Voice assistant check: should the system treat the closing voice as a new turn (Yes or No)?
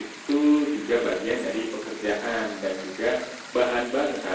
No